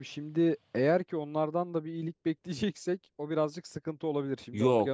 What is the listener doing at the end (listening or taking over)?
taking over